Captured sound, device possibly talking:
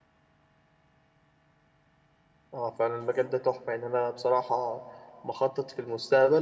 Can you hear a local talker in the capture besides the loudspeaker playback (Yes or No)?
Yes